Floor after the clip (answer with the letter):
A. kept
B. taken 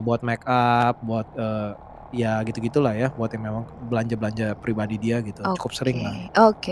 B